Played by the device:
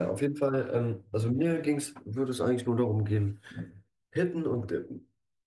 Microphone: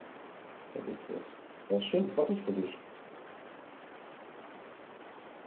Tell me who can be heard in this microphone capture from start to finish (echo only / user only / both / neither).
user only